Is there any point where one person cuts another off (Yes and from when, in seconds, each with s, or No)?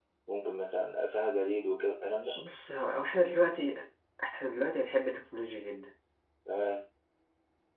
No